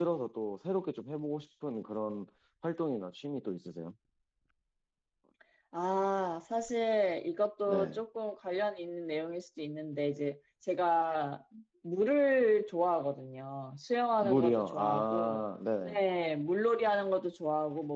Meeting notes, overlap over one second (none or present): present